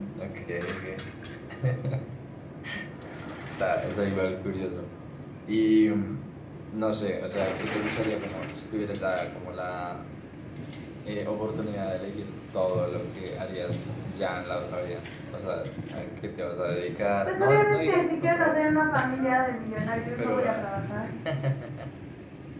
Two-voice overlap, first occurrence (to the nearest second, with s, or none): 17 s